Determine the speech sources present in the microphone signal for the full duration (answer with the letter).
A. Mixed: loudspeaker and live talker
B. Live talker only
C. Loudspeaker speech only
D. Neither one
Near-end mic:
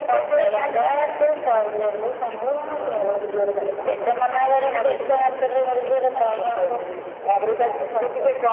C